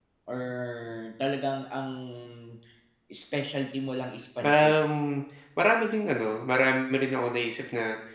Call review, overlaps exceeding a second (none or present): none